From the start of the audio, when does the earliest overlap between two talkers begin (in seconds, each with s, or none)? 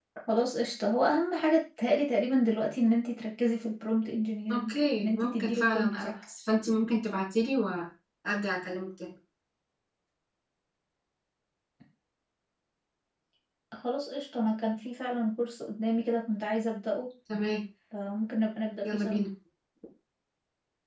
4.5 s